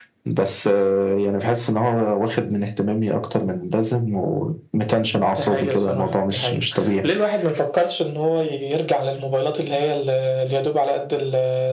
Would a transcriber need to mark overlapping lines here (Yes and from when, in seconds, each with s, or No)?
Yes, from 5.4 s